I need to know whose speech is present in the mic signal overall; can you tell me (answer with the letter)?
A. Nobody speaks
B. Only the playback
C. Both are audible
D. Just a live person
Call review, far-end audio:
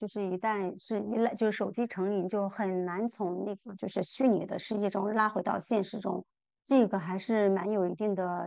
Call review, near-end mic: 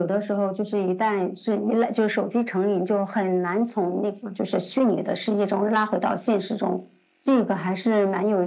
B